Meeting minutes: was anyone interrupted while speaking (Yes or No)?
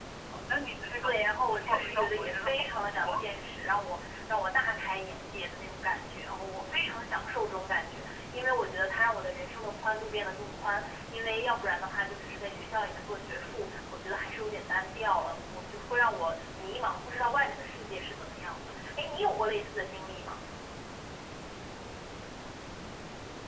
Yes